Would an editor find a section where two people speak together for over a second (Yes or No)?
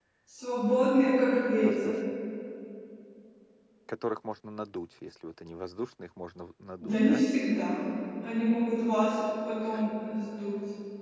No